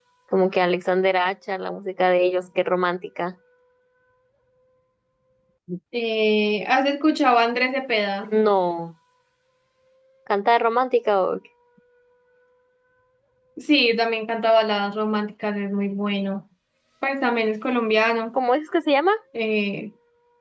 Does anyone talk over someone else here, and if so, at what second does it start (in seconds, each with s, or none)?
none